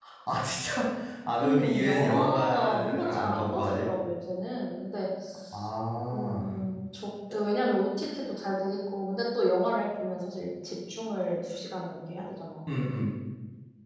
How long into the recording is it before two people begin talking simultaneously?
1.4 s

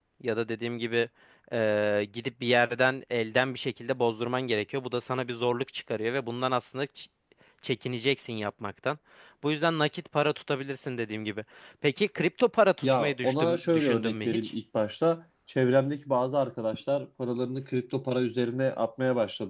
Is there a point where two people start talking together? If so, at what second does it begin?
12.8 s

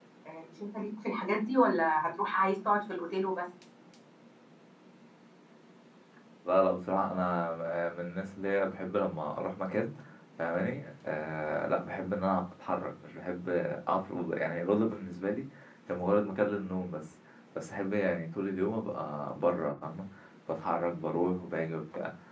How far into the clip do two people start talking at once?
none

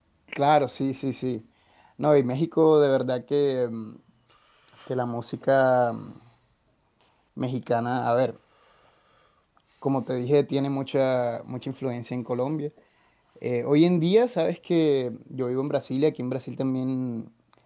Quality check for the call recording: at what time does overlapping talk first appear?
none

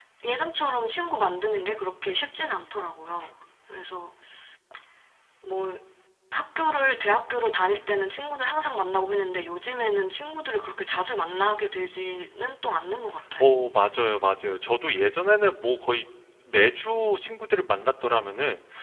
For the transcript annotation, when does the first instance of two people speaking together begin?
none

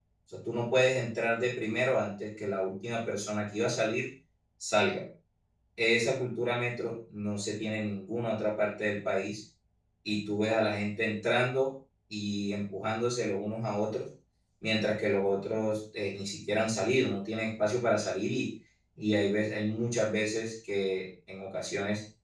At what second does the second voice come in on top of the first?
none

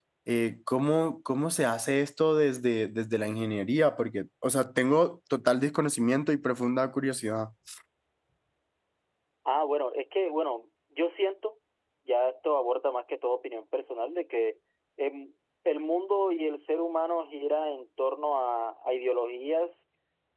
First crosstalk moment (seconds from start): none

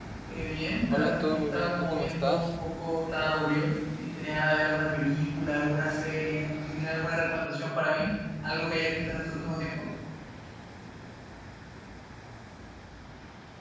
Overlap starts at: 0.9 s

